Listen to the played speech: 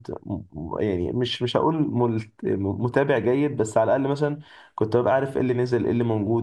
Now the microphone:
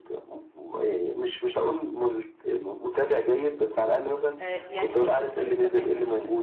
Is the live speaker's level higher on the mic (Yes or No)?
No